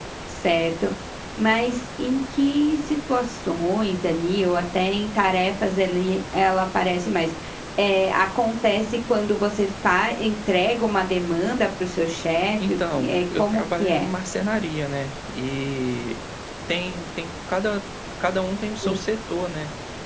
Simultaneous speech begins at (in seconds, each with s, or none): 12.6 s